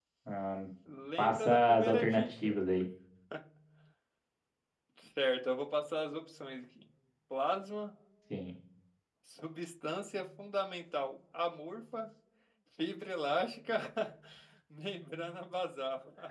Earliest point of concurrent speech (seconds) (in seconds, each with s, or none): 1.2 s